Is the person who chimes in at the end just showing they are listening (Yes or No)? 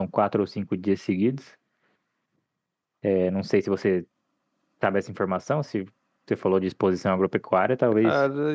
No